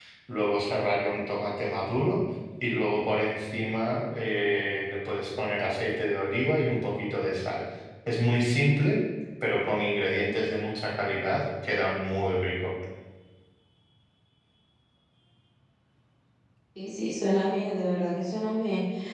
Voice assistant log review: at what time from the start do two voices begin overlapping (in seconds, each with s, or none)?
none